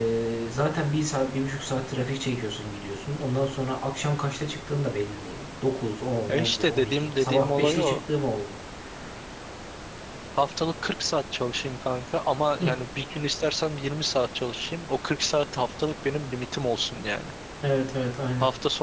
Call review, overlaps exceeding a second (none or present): present